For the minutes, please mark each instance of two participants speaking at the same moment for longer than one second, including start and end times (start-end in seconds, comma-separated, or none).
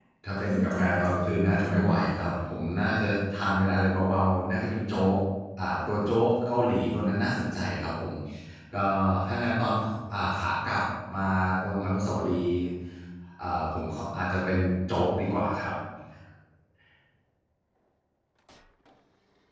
0.5-2.3